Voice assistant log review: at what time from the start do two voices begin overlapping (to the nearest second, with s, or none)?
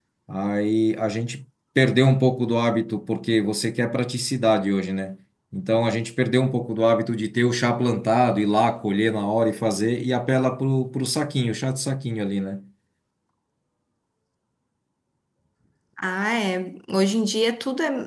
none